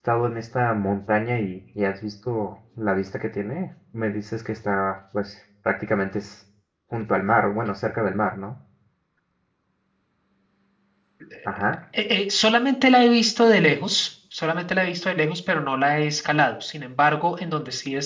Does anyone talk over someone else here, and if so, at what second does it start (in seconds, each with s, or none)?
none